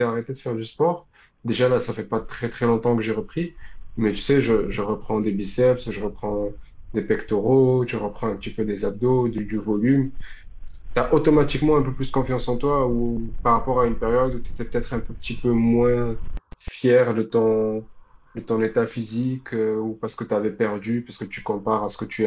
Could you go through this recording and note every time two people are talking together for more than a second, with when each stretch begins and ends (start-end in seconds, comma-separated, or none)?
none